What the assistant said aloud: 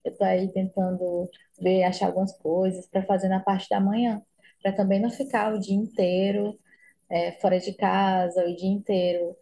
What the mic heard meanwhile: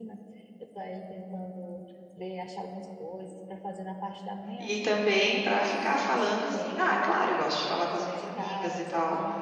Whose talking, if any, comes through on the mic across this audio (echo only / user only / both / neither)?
both